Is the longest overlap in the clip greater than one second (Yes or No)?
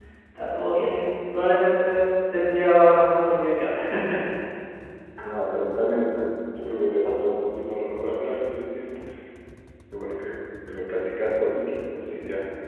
No